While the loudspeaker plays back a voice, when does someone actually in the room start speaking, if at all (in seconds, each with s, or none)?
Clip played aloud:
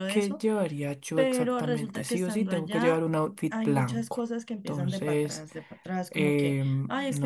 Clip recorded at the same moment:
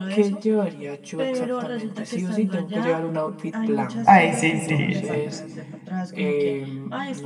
4.1 s